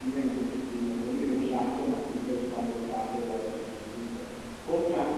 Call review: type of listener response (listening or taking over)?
listening